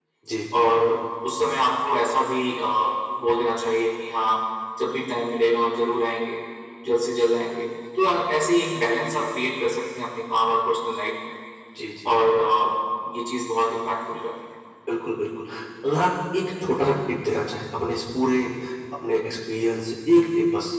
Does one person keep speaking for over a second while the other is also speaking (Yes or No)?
No